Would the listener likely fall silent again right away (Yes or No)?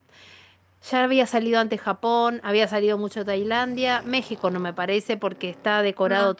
Yes